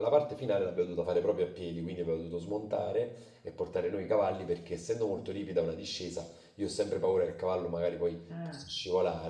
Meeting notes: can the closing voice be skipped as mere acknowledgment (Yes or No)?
Yes